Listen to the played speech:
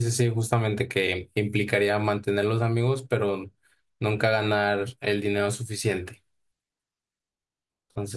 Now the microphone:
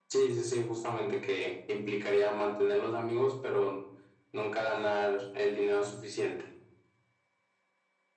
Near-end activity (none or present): none